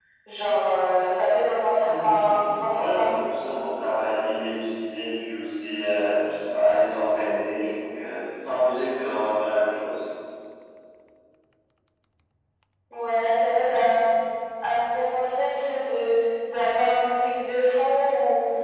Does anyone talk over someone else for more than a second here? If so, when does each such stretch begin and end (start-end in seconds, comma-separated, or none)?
1.8-3.2